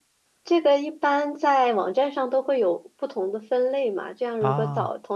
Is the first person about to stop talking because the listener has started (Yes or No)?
No